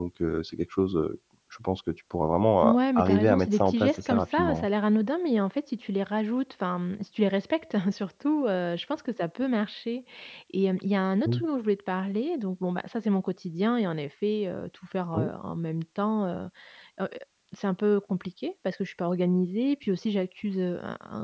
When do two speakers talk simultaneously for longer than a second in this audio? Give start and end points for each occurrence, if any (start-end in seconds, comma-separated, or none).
2.6-4.7